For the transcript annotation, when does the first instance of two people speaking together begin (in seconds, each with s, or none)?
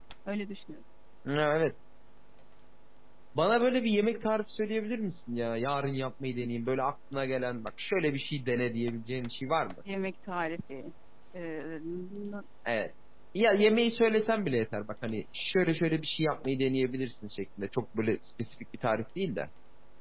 none